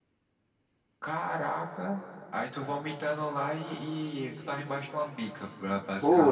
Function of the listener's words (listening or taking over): taking over